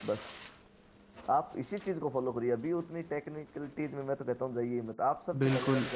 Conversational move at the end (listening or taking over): taking over